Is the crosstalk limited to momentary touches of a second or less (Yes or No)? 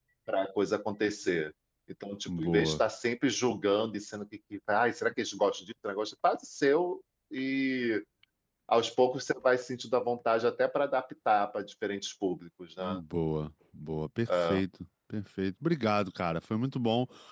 Yes